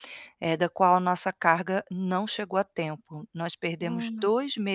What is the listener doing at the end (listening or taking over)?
listening